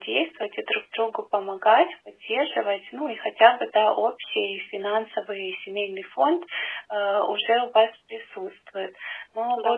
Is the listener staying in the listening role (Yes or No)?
Yes